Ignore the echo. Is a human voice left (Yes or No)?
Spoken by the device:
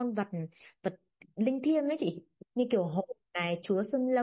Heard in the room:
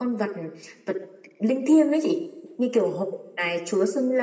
No